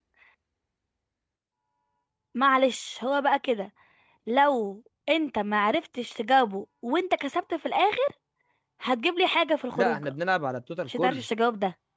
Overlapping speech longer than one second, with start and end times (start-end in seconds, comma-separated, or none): none